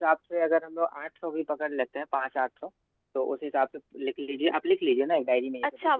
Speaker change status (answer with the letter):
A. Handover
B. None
A